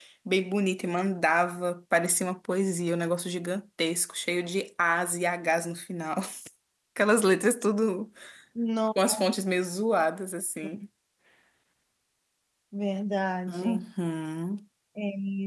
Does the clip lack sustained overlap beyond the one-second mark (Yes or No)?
Yes